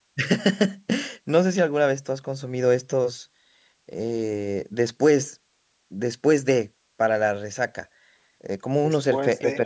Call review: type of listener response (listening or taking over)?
listening